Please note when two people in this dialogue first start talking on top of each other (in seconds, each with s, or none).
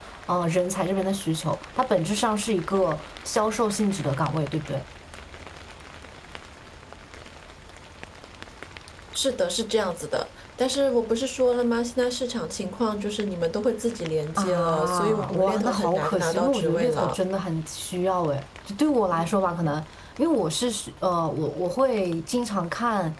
14.4 s